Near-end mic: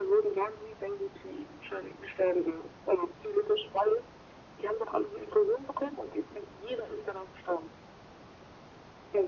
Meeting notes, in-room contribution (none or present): none